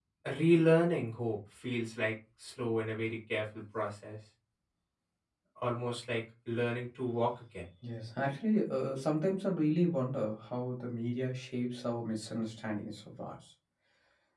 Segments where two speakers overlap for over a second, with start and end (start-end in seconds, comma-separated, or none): none